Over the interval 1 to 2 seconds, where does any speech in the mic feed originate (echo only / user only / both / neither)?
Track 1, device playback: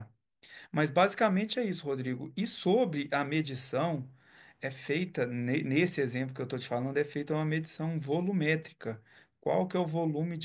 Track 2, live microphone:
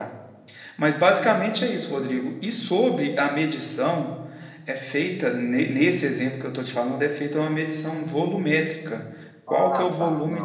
echo only